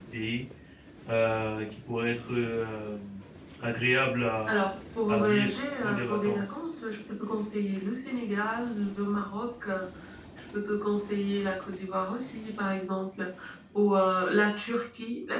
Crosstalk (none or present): present